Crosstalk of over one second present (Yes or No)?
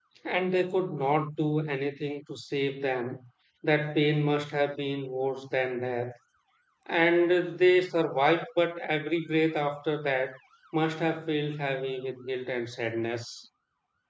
No